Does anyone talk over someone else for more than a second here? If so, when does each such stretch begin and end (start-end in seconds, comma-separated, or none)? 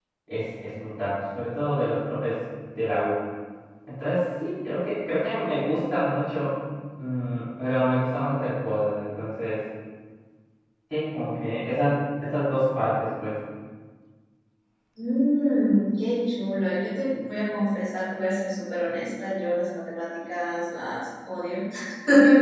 none